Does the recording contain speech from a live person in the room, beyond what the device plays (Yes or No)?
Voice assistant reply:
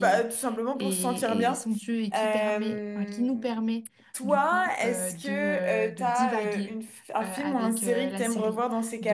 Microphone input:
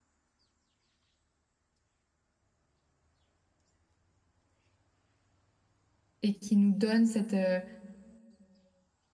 Yes